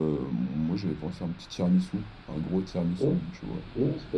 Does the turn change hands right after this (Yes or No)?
Yes